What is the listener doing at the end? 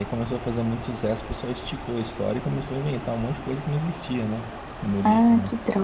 taking over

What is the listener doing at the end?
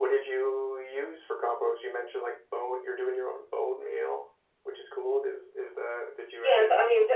taking over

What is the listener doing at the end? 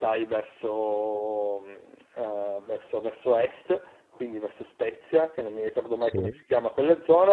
listening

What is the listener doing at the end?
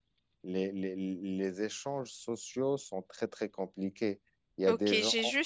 taking over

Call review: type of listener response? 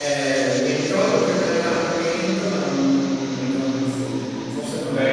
taking over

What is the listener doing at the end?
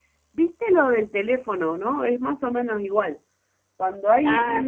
listening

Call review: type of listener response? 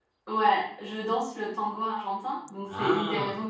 listening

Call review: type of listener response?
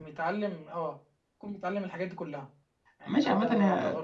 taking over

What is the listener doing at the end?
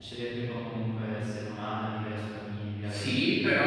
taking over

